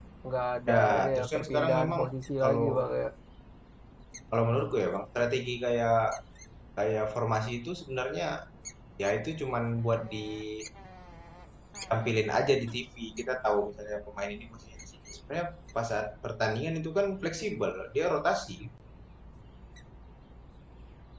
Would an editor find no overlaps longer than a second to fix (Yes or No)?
No